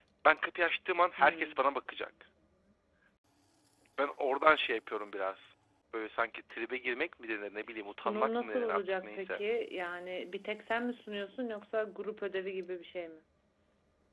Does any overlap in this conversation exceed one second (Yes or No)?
Yes